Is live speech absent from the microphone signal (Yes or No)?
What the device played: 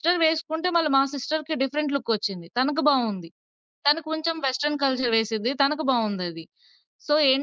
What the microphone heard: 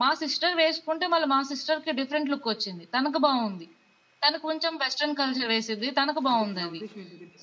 No